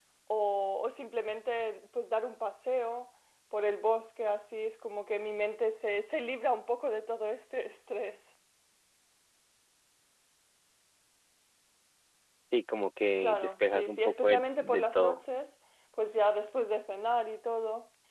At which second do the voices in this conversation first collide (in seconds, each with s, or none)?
13.2 s